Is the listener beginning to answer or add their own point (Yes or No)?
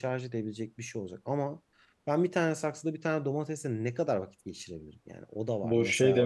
Yes